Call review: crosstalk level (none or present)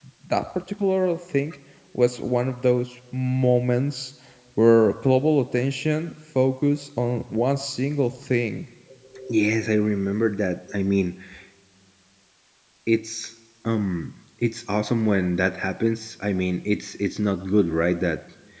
none